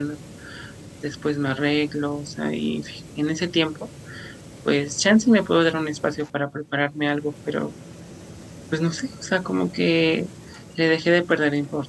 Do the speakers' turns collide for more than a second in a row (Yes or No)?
No